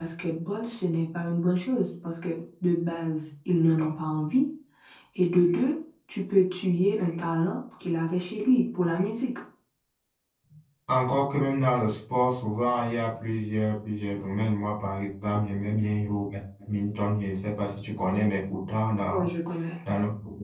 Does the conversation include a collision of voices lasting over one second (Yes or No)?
No